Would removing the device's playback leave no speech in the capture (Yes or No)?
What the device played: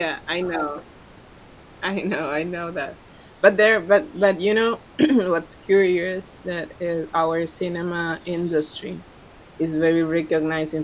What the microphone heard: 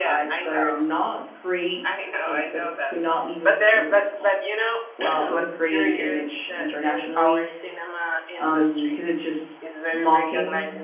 No